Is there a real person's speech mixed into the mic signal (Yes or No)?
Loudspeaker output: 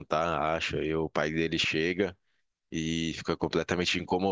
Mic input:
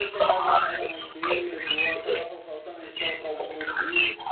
Yes